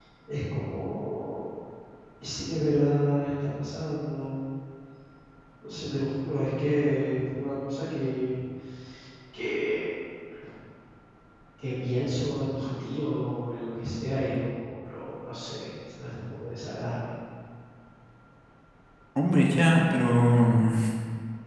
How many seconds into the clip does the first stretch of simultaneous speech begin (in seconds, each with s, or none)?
none